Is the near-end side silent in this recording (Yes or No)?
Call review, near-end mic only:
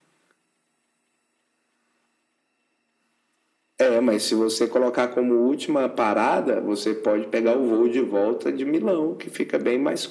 Yes